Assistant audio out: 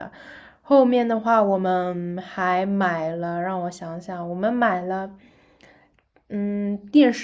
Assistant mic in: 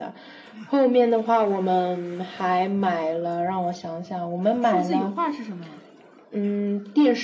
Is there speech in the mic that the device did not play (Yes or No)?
Yes